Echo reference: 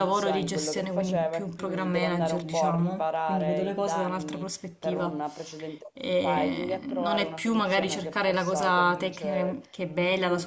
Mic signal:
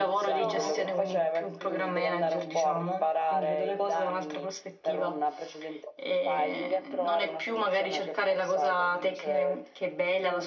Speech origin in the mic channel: both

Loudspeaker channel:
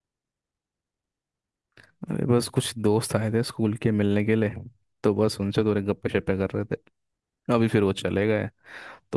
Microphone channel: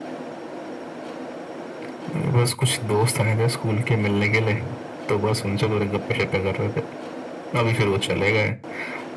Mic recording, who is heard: echo only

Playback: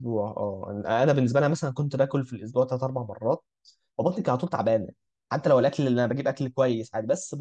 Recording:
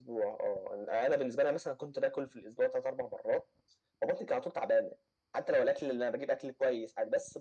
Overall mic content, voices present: echo only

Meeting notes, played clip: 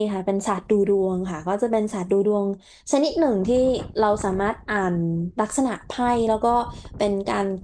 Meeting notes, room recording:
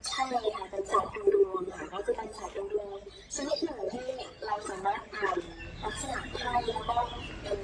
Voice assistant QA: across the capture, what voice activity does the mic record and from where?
echo only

